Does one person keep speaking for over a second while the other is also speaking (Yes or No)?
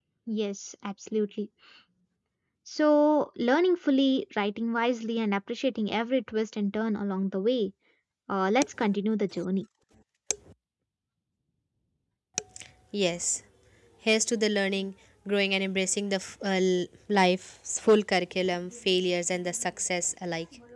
No